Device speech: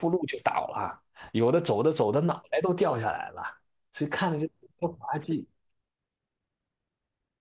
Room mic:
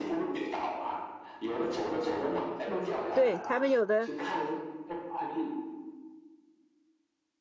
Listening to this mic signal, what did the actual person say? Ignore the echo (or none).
嗯，对他们有的，